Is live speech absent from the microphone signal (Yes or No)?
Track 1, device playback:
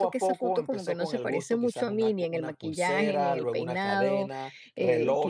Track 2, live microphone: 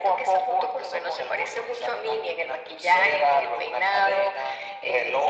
Yes